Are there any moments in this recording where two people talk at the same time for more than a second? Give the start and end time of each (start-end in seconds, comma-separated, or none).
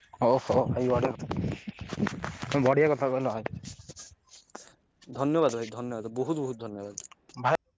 none